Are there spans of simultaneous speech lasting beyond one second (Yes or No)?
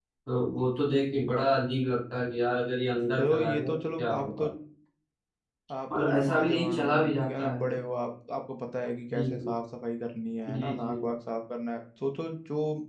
Yes